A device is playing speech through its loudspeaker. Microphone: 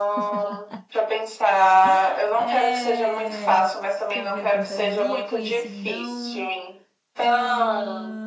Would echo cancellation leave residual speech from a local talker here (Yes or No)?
Yes